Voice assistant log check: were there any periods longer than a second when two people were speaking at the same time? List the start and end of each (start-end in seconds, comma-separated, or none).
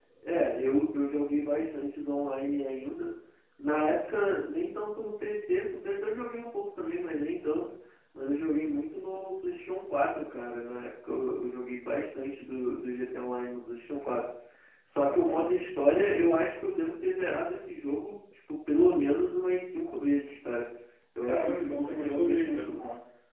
21.2-22.6